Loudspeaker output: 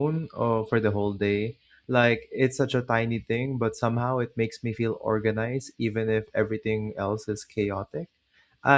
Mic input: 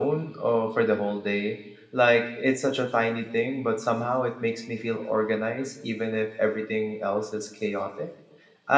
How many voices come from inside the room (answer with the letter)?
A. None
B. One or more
A